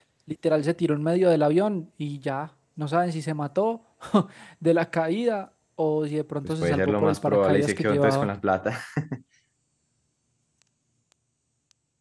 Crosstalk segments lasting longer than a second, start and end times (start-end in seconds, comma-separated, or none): 6.4-8.3